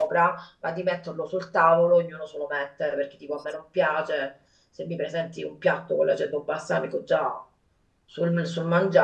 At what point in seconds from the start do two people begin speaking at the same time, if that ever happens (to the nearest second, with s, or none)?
none